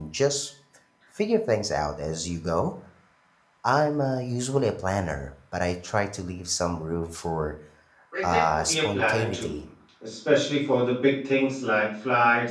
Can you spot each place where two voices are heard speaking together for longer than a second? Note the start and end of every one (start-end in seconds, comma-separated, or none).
8.3-9.5